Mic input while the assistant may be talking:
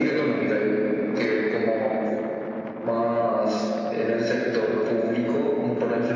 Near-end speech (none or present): none